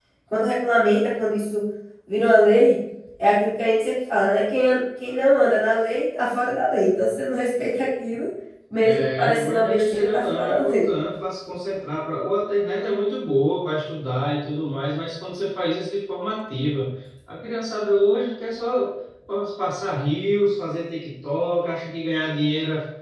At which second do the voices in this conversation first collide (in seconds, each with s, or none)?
8.8 s